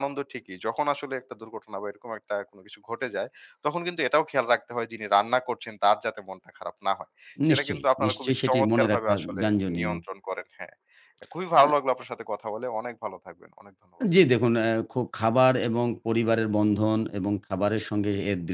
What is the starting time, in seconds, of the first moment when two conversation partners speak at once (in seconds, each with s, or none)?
7.4 s